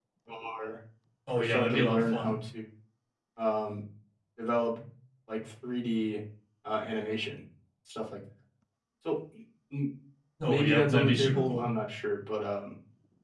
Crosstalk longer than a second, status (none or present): present